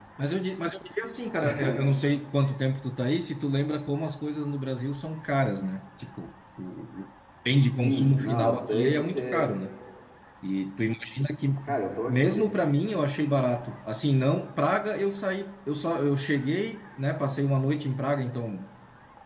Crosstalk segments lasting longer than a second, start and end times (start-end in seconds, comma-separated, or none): 7.8-9.5